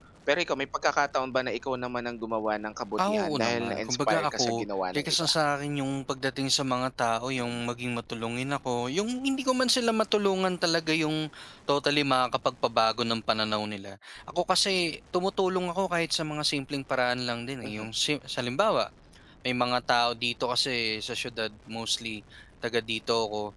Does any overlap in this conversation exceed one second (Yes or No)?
Yes